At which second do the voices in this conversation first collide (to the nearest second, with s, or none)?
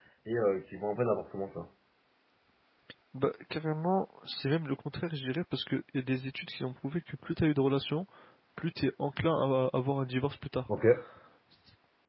none